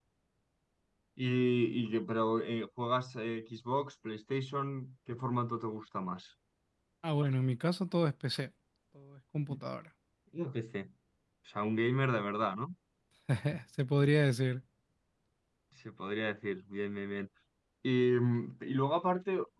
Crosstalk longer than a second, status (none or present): none